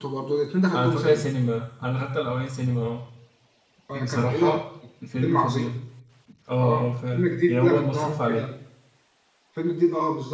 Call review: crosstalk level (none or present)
present